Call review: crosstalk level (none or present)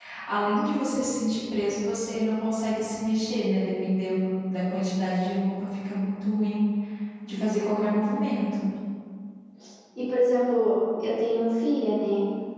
none